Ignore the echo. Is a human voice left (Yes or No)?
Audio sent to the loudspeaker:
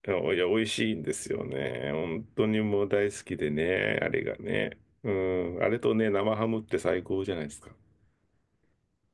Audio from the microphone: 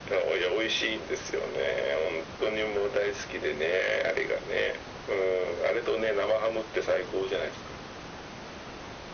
No